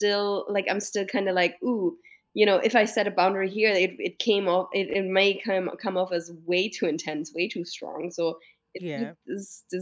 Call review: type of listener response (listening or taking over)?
listening